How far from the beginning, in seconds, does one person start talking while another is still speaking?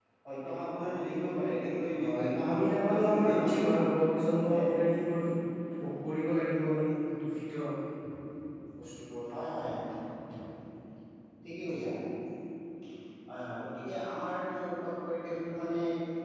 2.0 s

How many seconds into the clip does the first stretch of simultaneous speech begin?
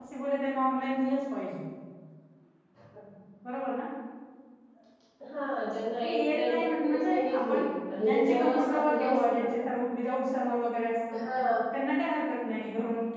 6.0 s

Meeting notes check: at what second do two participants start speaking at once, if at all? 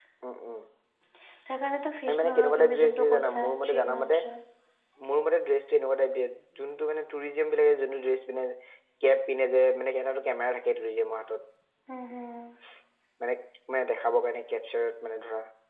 2.1 s

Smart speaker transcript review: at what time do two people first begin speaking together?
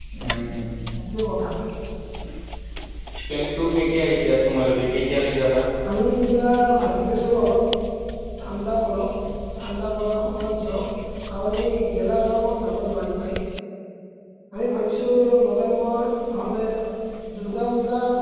none

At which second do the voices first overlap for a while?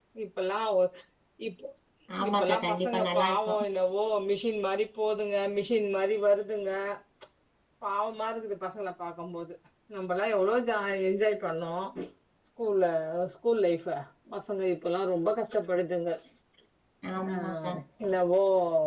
2.3 s

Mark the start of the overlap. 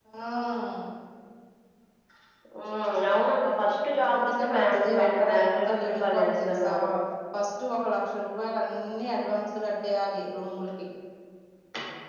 4.0 s

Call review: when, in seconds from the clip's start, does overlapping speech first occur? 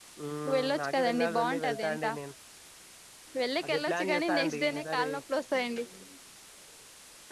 0.6 s

